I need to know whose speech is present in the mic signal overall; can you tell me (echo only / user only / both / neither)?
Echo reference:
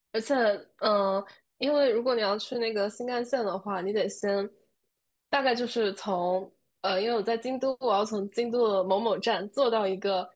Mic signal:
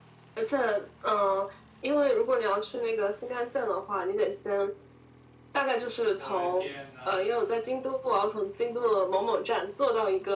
both